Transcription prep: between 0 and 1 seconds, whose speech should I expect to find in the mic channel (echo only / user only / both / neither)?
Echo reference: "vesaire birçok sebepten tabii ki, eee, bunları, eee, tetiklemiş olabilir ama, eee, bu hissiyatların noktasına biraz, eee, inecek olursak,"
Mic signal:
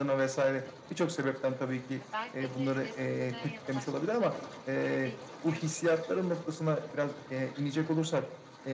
echo only